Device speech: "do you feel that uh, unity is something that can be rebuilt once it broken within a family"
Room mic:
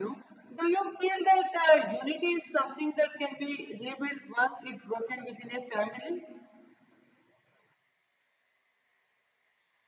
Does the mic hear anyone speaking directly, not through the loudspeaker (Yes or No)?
No